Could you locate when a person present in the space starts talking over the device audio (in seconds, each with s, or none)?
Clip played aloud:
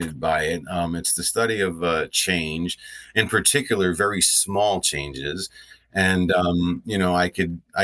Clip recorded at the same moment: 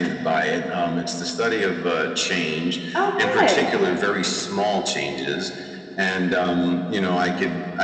3.0 s